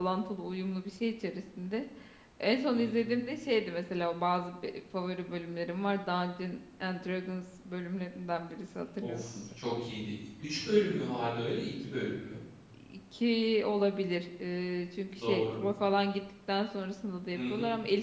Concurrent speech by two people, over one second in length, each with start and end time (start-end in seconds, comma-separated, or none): none